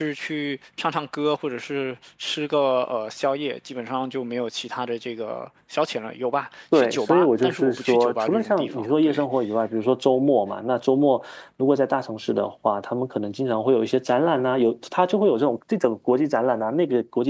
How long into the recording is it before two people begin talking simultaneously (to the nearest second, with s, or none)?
7 s